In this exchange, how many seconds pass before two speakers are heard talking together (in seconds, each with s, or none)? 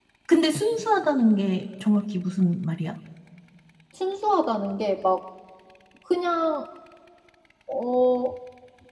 none